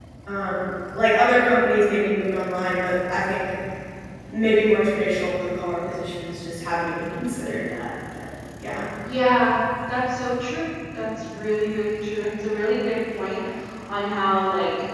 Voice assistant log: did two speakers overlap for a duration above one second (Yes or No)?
No